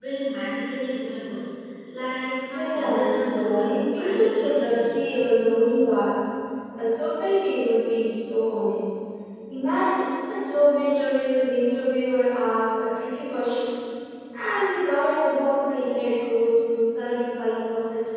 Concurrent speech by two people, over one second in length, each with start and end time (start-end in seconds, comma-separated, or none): 2.5-5.0